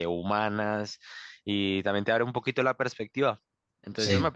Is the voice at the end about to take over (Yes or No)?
Yes